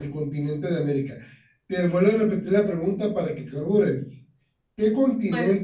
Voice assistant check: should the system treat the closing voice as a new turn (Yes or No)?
No